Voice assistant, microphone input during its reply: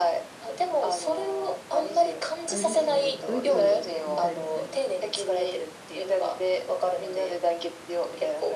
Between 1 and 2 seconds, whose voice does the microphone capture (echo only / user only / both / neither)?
echo only